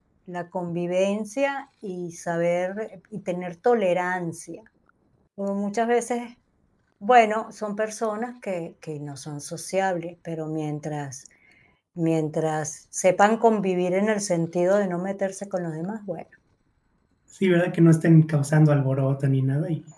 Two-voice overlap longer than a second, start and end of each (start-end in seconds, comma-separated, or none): none